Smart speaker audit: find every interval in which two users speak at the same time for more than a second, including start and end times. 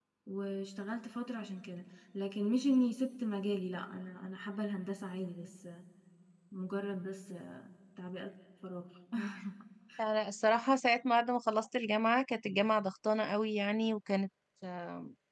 none

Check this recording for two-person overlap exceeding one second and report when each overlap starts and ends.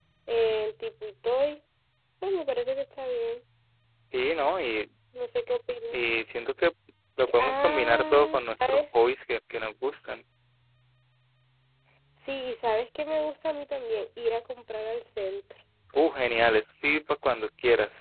7.3-8.9

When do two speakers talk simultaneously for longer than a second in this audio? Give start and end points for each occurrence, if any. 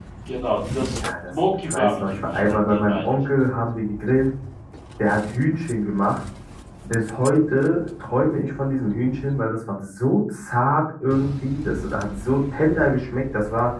1.3-3.1

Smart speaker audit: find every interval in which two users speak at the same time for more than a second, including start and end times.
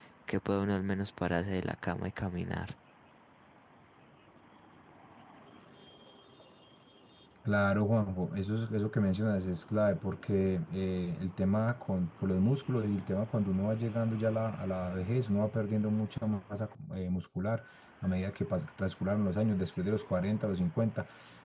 none

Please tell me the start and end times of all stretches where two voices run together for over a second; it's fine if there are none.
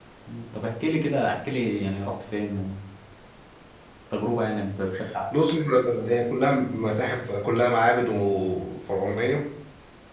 none

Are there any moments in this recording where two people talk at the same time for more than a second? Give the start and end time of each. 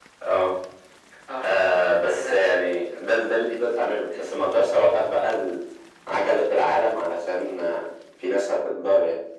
1.4-3.5

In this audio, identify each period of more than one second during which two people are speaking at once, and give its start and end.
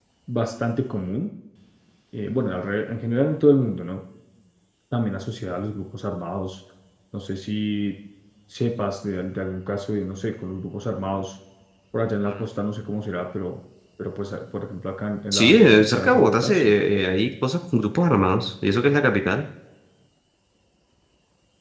15.3-16.7

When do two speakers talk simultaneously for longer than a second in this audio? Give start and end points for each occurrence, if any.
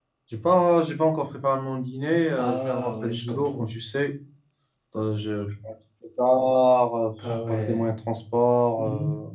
2.4-3.6

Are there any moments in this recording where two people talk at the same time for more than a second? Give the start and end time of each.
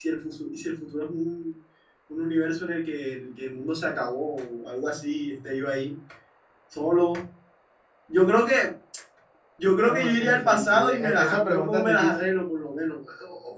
9.8-12.2

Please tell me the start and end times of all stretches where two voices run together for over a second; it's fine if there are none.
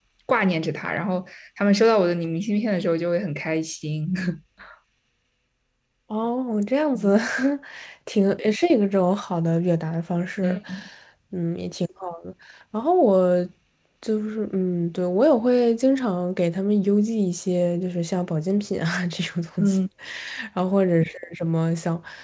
none

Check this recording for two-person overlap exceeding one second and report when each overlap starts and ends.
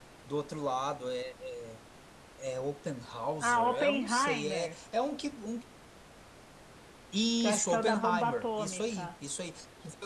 3.4-4.8, 7.4-9.1

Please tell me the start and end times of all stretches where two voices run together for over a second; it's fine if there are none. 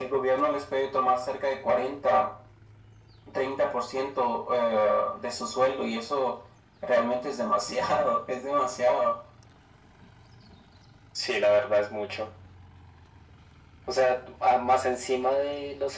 none

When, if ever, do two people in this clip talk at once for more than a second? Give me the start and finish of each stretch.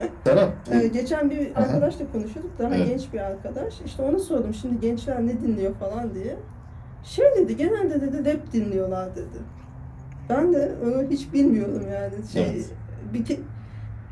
none

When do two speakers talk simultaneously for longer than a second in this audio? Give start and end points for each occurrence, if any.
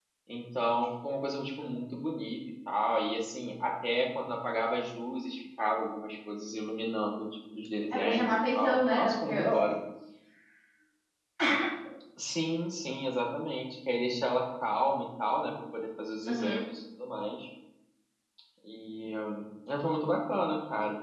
7.9-9.5

